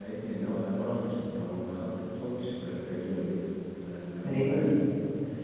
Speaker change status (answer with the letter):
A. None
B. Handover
A